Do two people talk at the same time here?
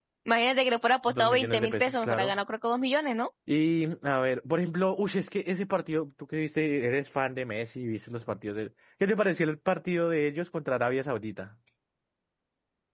Yes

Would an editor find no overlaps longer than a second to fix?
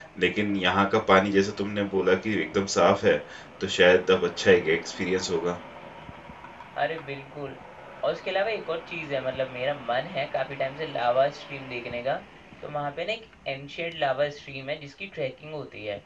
Yes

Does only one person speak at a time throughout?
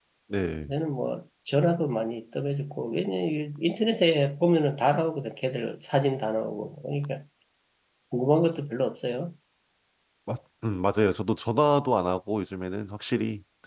Yes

